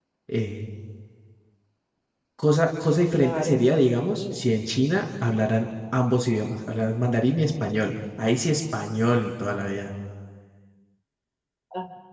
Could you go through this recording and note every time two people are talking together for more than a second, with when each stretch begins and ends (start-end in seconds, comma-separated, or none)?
3.1-4.4